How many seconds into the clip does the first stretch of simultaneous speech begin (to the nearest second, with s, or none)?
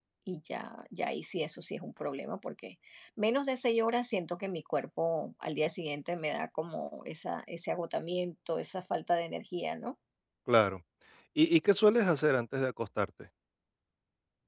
none